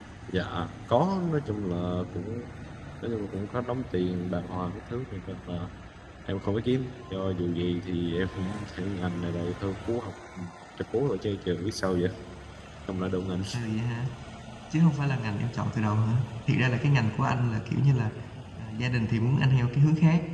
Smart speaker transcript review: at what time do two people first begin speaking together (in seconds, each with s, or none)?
none